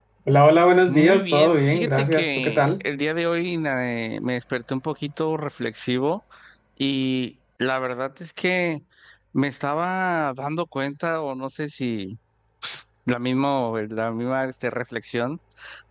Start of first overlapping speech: 1 s

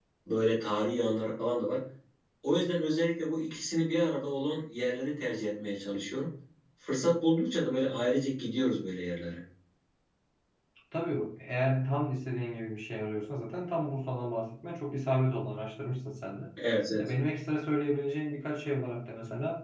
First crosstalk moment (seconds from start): none

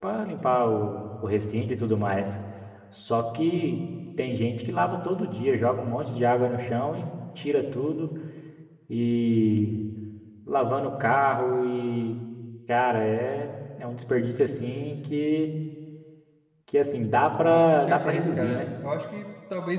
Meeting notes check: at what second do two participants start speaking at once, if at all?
17 s

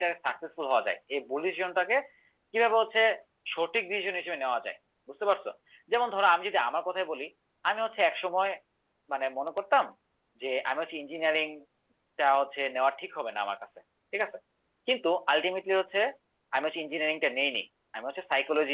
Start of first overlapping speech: none

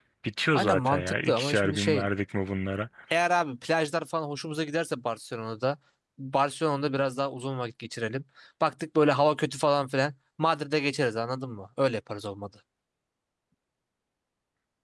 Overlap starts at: 1 s

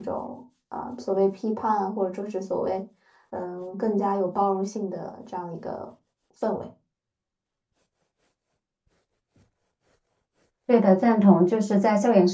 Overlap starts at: none

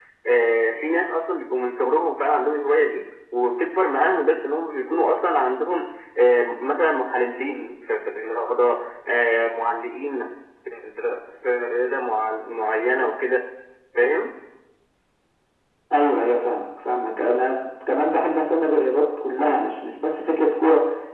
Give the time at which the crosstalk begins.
none

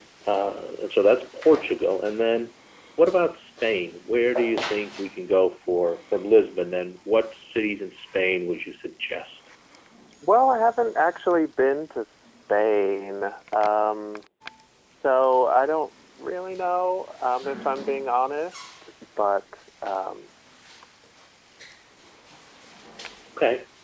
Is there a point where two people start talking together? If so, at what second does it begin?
none

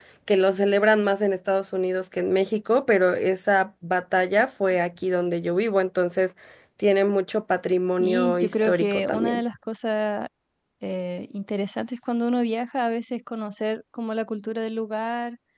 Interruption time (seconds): 8 s

